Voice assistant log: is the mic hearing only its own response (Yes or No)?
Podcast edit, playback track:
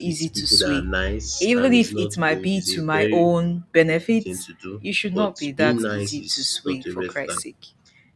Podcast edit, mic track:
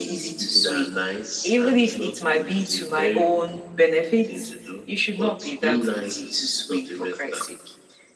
Yes